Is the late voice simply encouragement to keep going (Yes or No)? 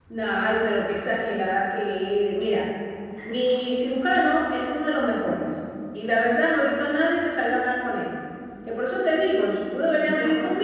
Yes